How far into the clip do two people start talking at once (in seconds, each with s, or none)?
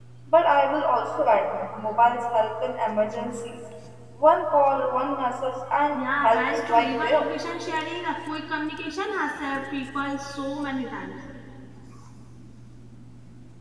5.9 s